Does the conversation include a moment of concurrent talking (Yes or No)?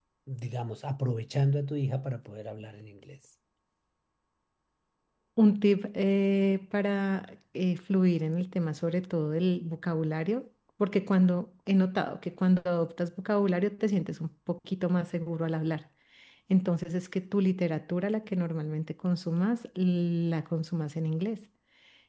No